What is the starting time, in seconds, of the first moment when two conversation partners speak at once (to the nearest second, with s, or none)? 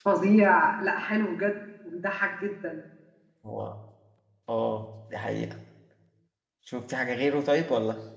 none